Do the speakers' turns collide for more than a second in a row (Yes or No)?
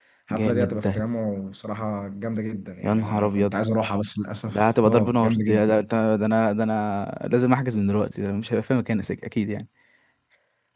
Yes